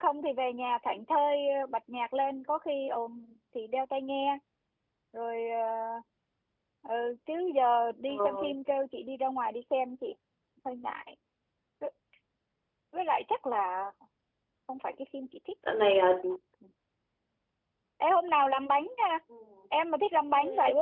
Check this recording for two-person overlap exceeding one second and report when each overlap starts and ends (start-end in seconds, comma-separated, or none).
none